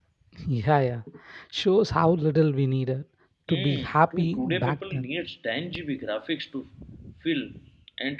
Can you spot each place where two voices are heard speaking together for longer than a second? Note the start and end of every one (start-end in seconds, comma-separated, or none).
3.5-5.1